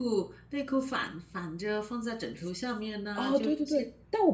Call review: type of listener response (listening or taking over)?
taking over